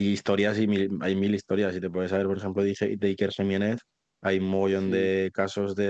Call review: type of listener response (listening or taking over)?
listening